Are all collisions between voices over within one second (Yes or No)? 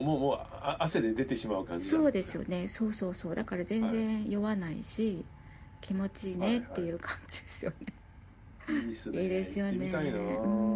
No